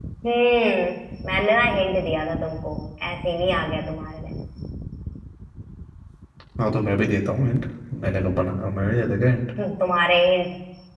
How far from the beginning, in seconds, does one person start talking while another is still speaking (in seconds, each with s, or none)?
none